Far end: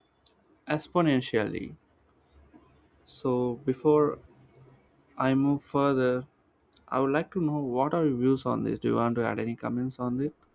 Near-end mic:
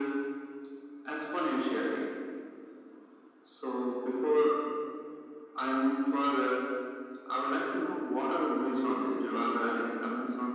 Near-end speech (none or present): none